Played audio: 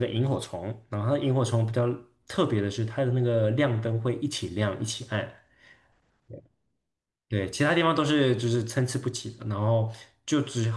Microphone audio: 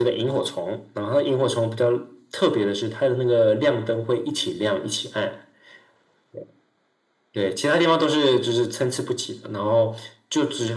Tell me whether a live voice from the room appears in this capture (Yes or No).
No